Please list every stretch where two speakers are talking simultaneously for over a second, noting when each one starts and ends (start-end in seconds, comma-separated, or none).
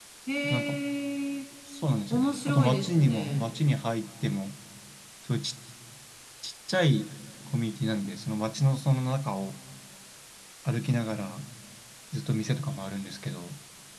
2.1-3.5